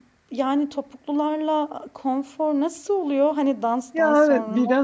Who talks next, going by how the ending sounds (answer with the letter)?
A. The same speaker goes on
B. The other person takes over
B